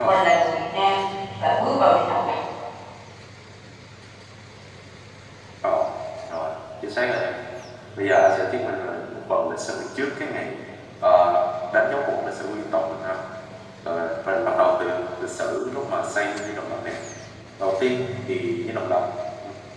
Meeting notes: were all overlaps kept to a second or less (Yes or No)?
Yes